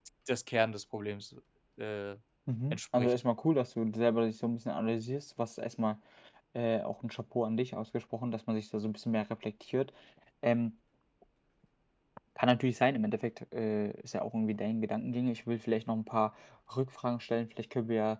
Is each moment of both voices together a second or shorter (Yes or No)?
Yes